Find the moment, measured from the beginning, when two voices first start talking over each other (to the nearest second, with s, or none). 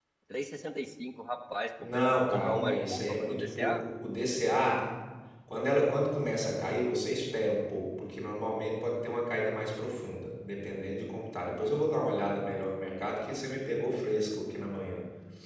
2 s